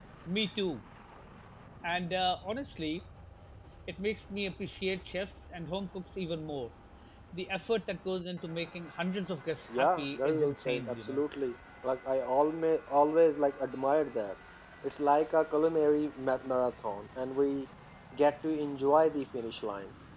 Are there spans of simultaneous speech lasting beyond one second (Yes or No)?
Yes